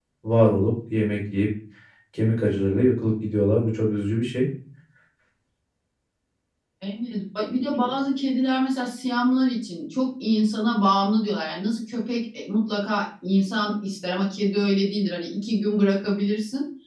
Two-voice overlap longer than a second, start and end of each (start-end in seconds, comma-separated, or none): none